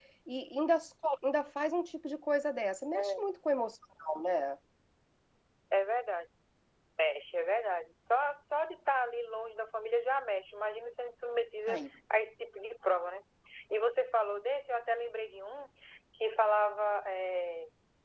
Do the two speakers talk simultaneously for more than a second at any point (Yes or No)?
No